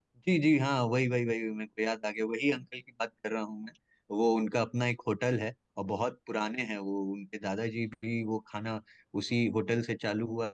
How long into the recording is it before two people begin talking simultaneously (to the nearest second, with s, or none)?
none